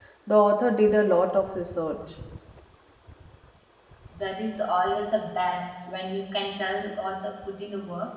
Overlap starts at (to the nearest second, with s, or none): none